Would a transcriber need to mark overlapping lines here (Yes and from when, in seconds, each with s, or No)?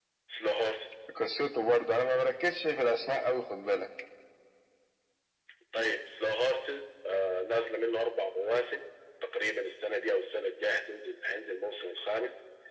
No